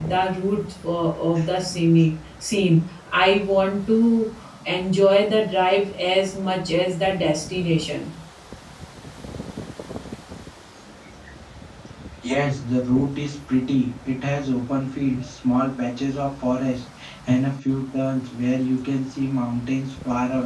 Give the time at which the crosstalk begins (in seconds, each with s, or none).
none